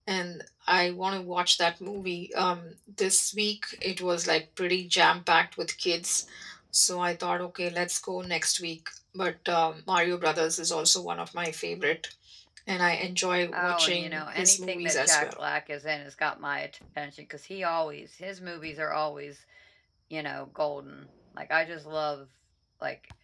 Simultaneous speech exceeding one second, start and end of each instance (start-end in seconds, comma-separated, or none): 13.5-15.2